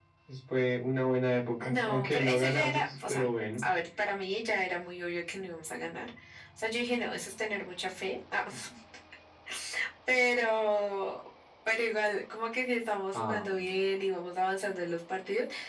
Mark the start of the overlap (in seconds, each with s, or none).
1.6 s